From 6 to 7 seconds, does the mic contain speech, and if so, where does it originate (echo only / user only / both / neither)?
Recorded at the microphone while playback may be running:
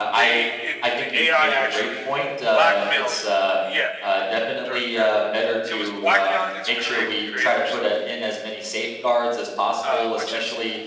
both